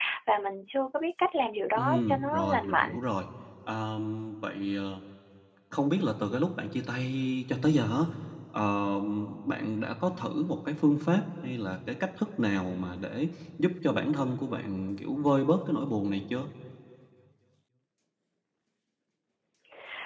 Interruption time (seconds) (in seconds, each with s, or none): 1.8 s